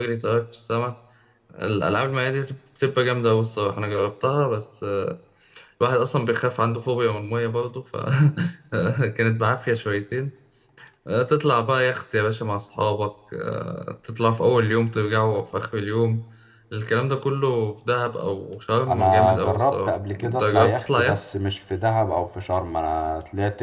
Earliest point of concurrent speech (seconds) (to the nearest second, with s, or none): 19 s